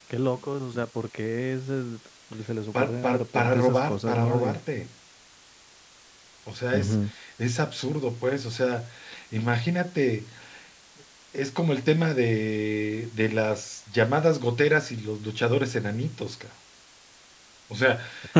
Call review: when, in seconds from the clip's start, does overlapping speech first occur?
3 s

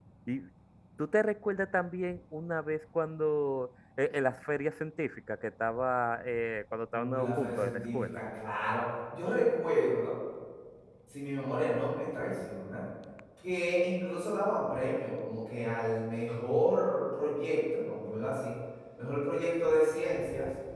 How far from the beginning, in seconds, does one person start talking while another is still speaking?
7 s

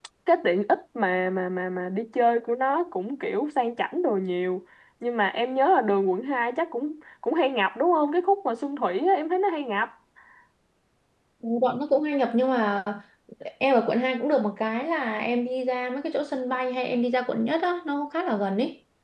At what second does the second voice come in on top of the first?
none

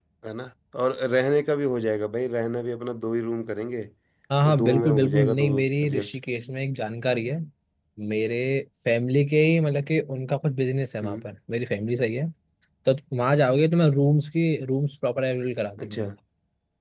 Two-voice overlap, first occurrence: 4 s

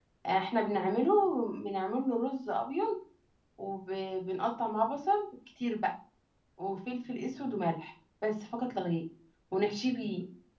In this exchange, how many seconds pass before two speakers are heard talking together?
none

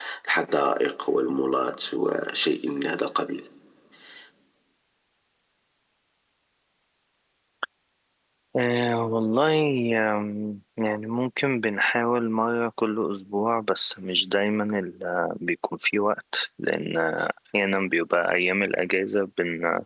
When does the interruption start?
none

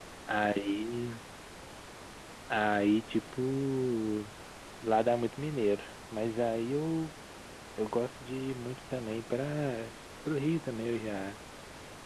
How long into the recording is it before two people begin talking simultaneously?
none

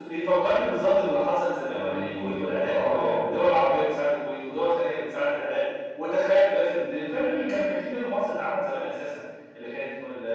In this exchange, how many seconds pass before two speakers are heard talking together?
2 s

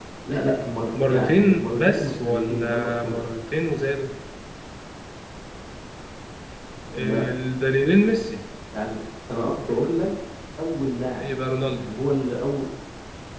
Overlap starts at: 1 s

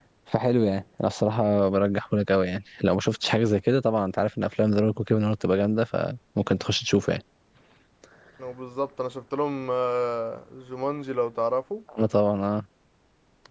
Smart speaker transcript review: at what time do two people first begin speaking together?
none

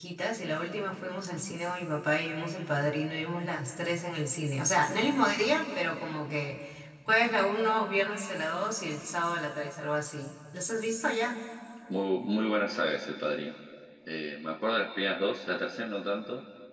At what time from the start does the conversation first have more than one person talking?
none

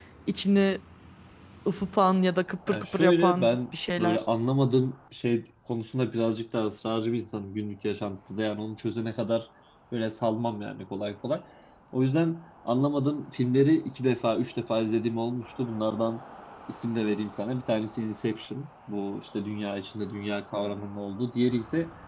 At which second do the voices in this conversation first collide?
3 s

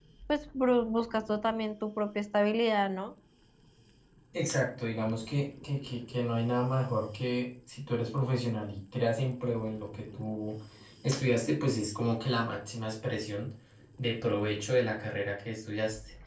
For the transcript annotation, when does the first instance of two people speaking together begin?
none

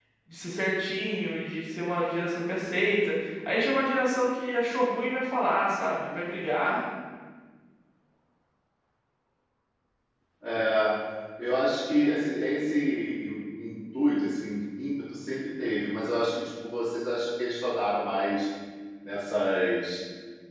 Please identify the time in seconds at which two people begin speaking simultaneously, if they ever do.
none

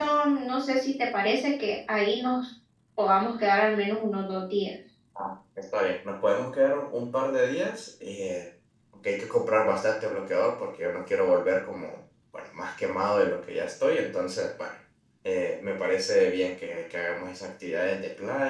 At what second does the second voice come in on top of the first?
none

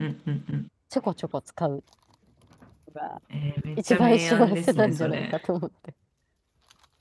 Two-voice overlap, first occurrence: 4 s

